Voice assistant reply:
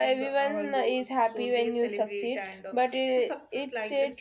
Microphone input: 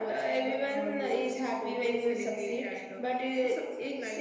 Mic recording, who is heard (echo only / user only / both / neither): echo only